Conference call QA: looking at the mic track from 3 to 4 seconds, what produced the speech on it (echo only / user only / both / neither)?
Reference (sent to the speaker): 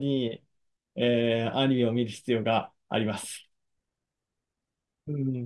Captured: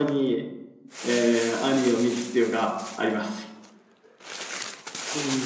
echo only